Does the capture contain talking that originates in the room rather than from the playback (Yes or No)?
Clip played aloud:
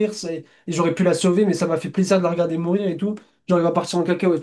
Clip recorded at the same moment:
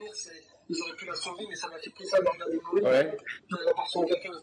Yes